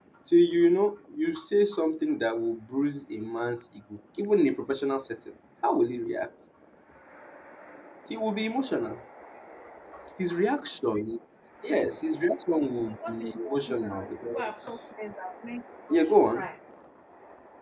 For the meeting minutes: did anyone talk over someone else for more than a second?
Yes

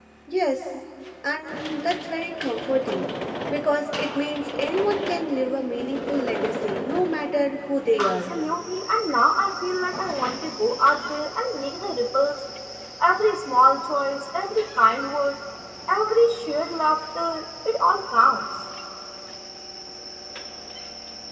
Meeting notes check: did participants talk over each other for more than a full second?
No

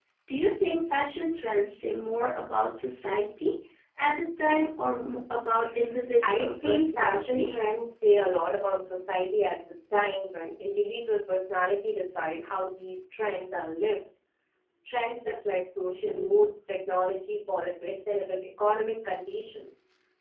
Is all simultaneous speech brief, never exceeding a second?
No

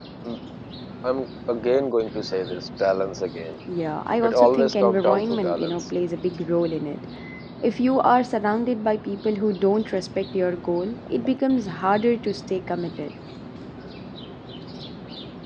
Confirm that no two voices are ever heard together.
No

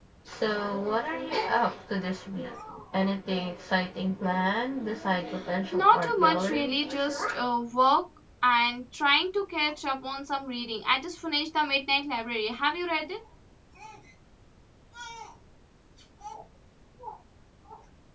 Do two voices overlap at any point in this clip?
Yes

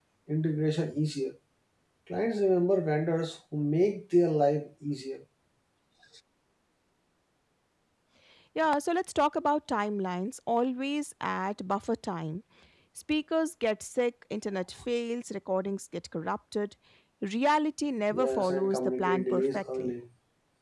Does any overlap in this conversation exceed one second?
Yes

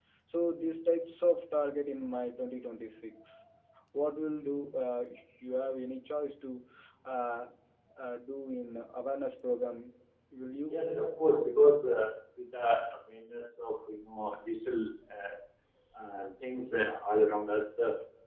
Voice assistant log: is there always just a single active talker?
Yes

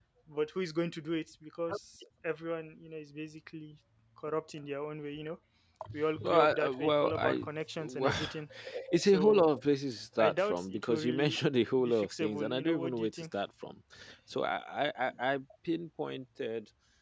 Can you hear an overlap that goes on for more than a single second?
Yes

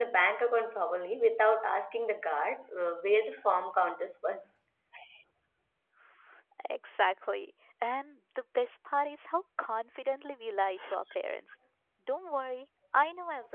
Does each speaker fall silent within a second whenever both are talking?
Yes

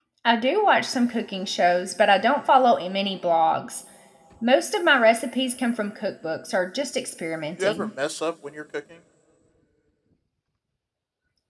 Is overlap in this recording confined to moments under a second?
Yes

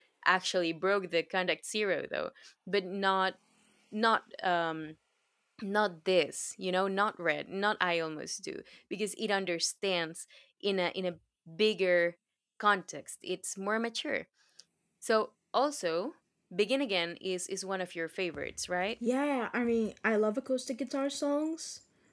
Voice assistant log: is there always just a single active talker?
Yes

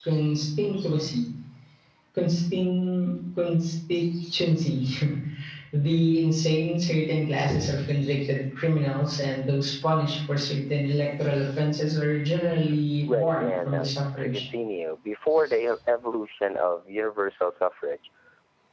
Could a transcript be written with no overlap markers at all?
No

